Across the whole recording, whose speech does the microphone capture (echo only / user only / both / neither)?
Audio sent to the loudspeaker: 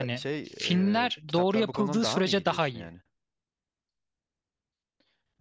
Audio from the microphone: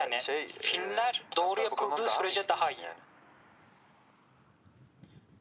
echo only